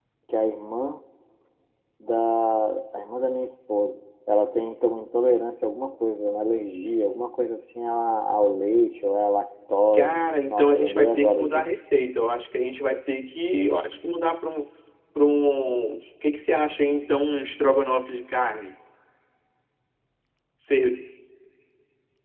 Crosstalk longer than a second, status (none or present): present